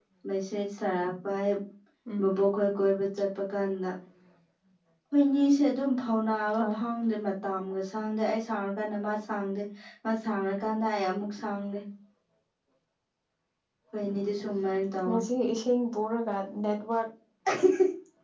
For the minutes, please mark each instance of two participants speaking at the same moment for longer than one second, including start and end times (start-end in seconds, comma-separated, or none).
none